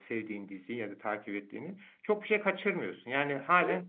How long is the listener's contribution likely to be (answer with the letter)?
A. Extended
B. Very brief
B